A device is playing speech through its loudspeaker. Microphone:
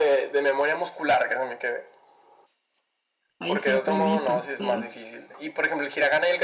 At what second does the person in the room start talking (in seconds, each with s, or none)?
3.4 s